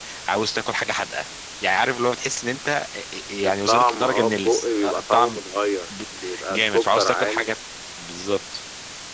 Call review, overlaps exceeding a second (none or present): present